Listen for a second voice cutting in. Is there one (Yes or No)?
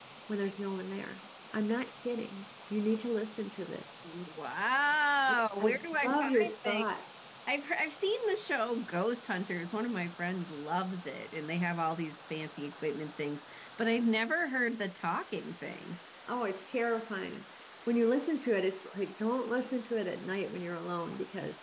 Yes